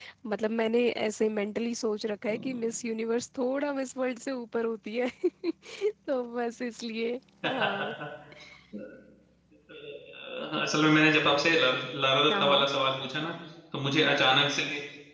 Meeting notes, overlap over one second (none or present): none